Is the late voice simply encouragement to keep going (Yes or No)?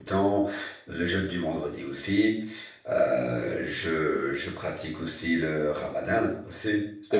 Yes